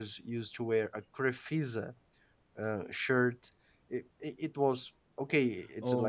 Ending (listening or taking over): taking over